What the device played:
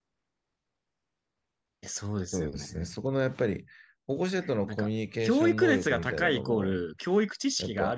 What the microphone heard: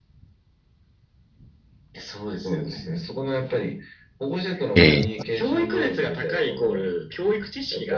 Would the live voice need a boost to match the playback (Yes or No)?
No